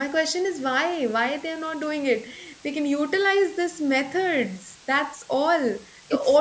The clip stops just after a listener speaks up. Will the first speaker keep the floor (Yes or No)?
Yes